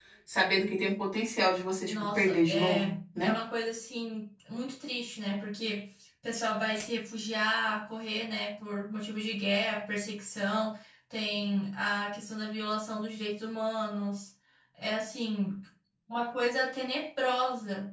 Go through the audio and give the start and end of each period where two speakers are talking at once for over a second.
1.9-3.4

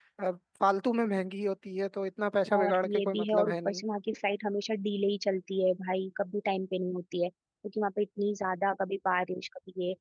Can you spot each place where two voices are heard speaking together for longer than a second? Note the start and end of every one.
2.6-3.8

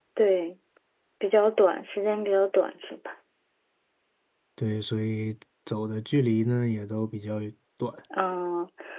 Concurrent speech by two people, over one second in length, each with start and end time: none

